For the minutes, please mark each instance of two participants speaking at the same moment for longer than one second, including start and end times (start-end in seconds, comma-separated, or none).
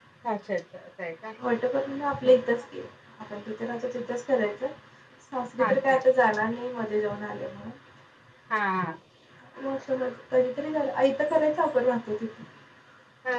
none